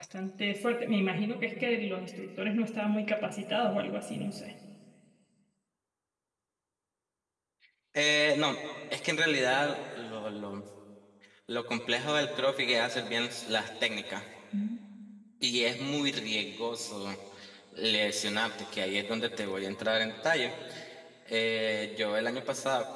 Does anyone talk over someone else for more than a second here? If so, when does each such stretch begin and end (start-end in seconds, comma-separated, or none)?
none